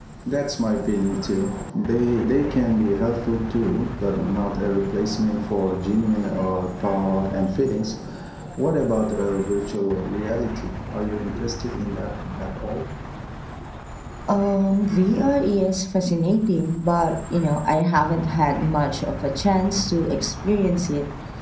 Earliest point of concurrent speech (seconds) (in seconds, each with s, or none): none